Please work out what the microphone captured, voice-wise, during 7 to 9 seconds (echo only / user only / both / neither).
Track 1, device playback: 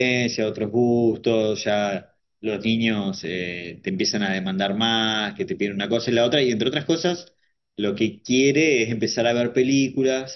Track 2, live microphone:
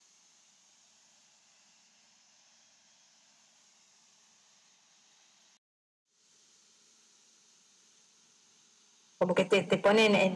neither